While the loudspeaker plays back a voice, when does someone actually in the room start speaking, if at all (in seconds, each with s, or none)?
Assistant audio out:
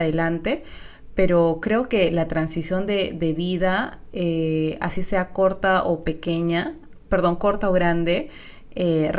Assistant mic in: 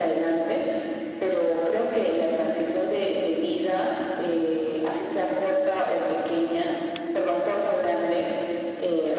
none